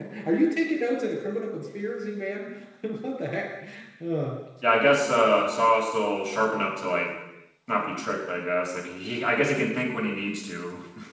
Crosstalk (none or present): none